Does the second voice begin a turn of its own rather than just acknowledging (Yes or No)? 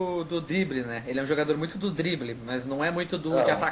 No